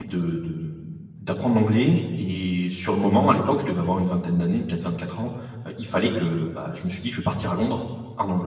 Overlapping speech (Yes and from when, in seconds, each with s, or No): No